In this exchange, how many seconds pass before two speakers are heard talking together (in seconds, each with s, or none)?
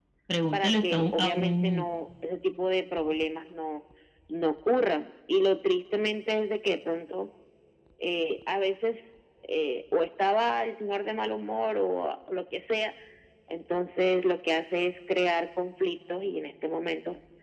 0.5 s